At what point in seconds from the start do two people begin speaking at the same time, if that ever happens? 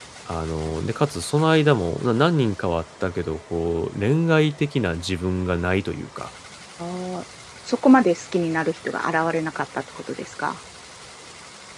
none

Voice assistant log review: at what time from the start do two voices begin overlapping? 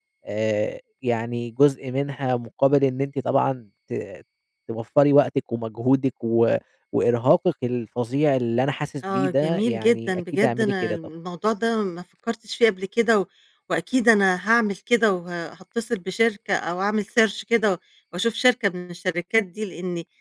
9.0 s

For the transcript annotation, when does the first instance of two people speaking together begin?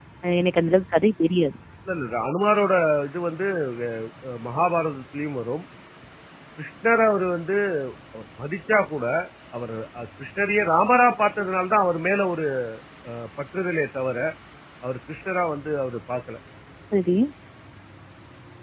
none

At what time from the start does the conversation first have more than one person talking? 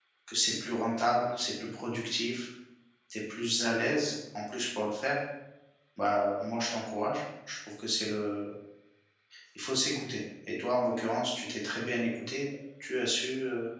none

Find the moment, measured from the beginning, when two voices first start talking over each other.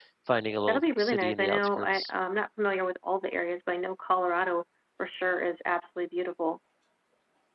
0.7 s

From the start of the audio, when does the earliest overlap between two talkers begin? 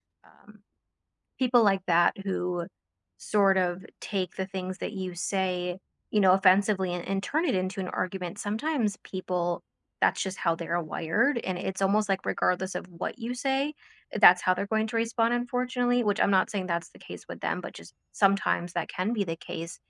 none

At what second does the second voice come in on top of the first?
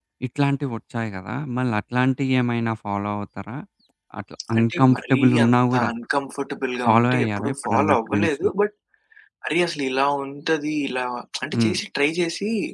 4.6 s

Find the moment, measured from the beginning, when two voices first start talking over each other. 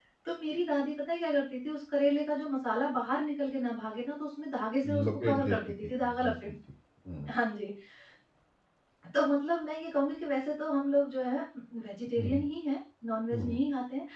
4.8 s

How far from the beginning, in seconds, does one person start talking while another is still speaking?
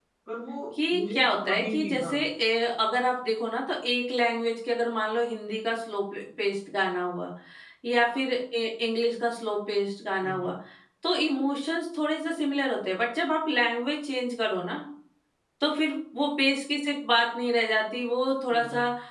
0.9 s

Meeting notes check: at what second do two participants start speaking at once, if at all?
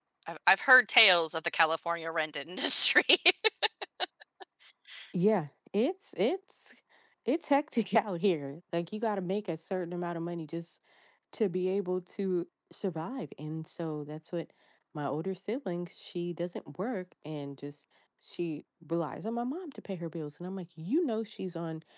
none

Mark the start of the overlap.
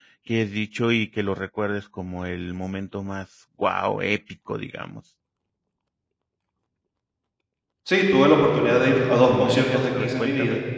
9.0 s

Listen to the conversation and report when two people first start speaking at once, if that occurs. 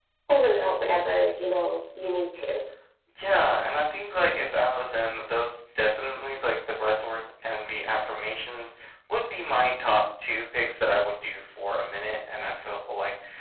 none

